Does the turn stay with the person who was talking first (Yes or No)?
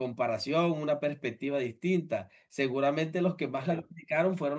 Yes